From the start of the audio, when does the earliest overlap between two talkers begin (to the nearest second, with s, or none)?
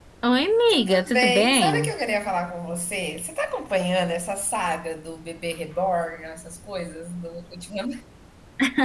1 s